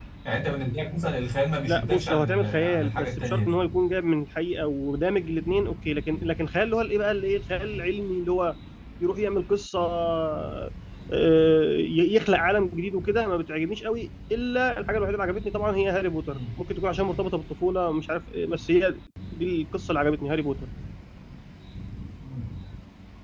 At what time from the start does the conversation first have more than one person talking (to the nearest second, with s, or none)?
2 s